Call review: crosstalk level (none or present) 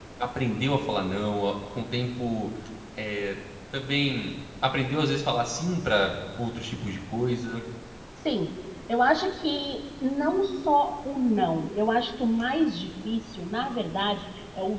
none